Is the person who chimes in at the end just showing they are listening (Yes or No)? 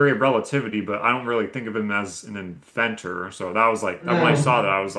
Yes